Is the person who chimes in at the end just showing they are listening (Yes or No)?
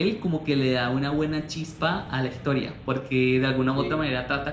Yes